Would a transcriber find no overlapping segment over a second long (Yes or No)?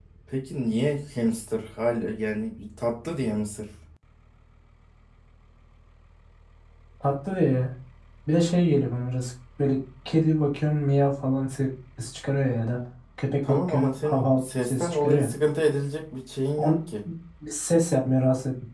No